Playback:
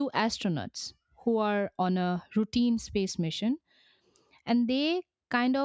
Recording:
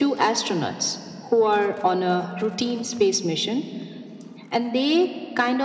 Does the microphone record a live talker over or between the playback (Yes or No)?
No